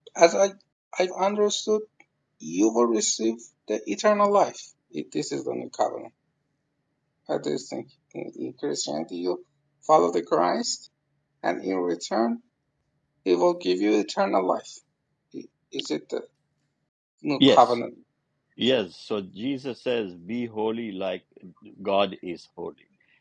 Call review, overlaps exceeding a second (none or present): none